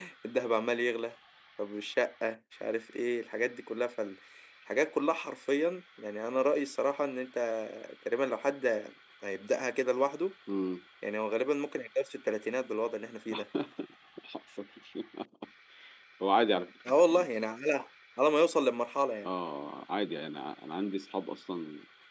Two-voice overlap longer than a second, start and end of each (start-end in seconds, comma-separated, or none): none